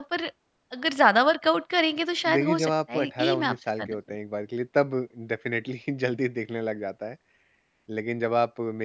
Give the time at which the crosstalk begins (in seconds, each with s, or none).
2.2 s